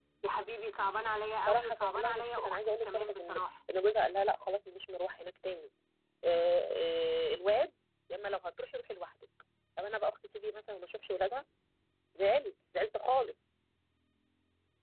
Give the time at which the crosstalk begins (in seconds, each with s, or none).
1.5 s